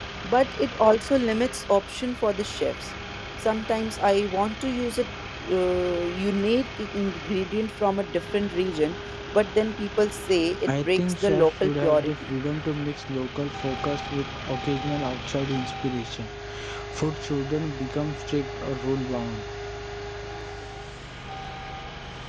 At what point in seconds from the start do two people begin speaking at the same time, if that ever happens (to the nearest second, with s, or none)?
11 s